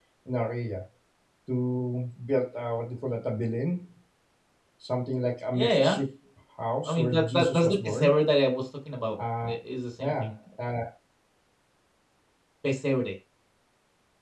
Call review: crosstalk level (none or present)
present